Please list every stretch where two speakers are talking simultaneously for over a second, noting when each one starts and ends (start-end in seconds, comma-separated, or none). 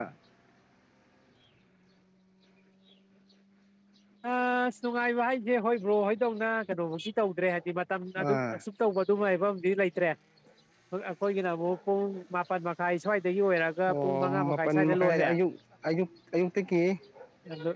13.9-15.3